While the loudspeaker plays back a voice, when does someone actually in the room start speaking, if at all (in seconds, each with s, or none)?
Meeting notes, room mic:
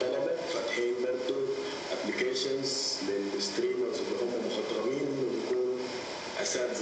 none